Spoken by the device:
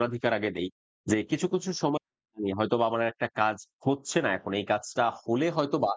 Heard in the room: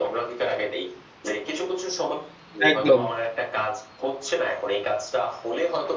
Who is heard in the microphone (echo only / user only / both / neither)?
both